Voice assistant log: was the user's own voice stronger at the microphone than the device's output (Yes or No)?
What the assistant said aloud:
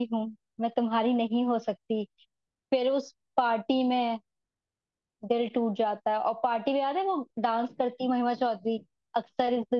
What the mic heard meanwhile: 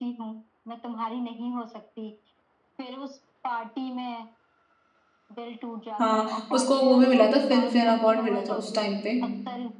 Yes